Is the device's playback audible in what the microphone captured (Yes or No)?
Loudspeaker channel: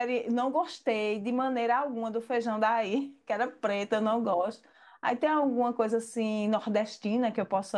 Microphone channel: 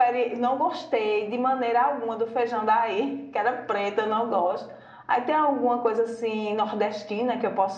Yes